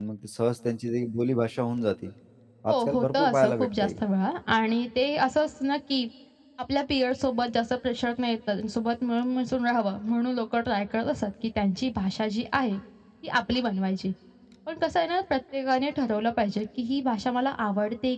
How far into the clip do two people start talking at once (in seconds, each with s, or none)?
2.7 s